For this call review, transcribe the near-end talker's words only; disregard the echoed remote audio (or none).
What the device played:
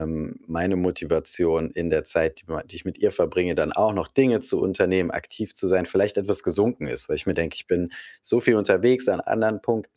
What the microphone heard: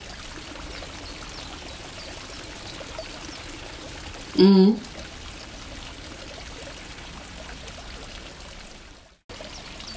Mhm.